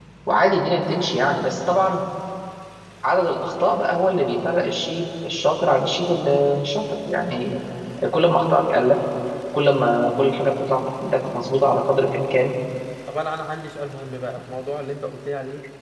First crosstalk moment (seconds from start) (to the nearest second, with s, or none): none